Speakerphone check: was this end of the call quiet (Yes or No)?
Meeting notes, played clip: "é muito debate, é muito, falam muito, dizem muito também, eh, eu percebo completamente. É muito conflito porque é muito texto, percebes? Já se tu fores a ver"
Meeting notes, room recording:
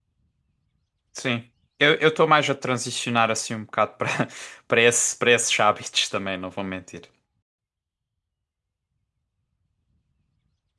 No